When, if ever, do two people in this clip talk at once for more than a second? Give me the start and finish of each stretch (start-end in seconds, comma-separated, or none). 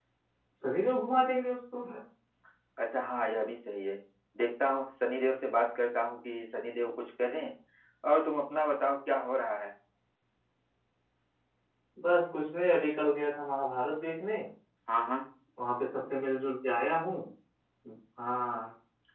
none